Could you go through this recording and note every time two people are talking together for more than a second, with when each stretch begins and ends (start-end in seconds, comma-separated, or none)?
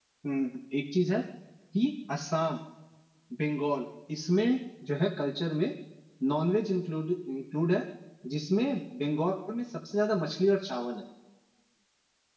none